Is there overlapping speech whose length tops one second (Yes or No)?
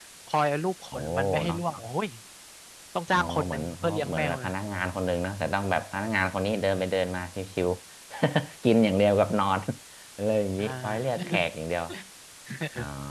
Yes